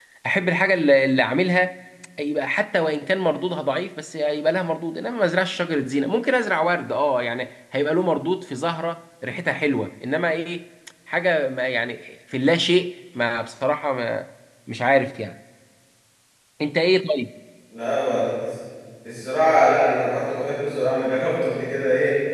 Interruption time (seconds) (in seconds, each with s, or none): none